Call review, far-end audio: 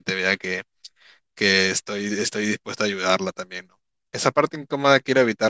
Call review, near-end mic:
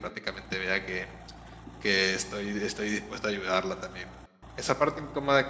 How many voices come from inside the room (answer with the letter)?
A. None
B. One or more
A